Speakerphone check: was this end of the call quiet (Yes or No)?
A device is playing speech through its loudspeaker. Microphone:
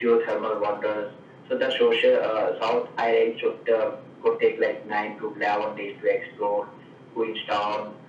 Yes